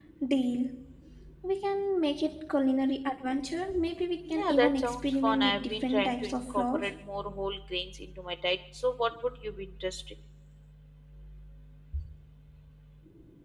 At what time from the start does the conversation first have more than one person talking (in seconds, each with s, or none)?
4.3 s